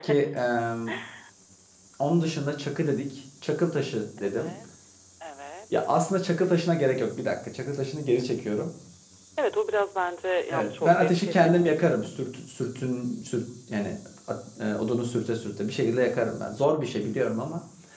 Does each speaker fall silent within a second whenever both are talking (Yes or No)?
No